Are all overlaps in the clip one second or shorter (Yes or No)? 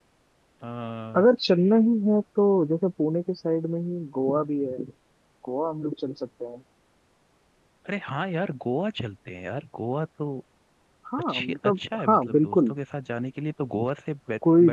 No